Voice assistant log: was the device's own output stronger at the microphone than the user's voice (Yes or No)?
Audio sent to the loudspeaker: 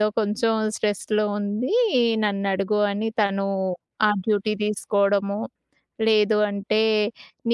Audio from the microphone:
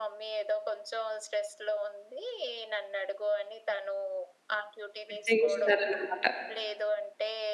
No